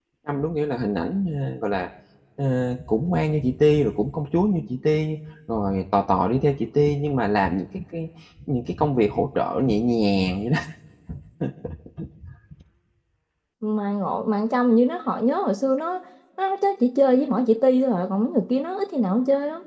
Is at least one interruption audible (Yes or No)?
No